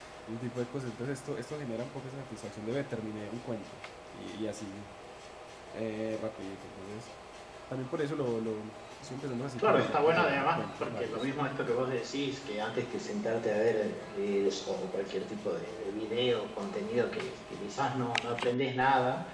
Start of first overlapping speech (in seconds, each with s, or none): 9.6 s